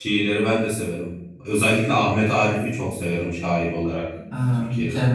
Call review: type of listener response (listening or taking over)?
taking over